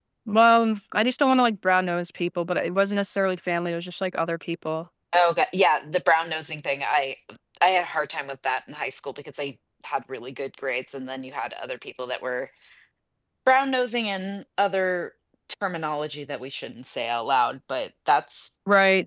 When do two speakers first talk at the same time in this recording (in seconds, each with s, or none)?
none